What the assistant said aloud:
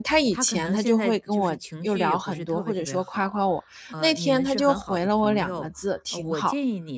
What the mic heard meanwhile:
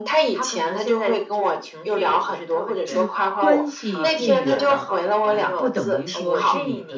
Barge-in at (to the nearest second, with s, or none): 3 s